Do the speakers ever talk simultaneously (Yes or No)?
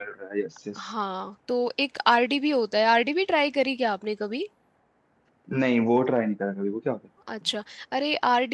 No